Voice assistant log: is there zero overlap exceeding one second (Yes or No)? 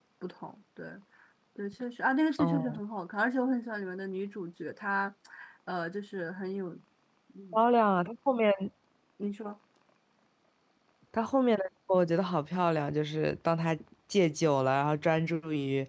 Yes